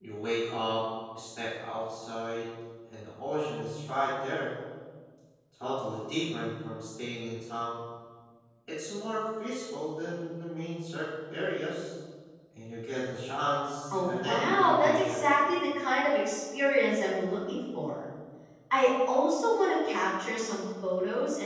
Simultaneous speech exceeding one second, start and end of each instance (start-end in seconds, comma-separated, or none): 13.9-15.2